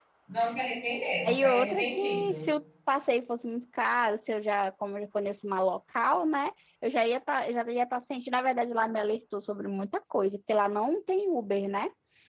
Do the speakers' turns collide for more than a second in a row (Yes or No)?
Yes